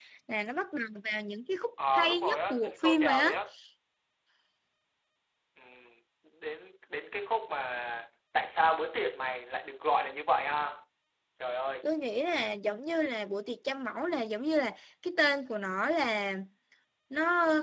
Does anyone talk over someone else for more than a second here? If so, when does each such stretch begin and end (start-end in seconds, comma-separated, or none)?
1.9-3.3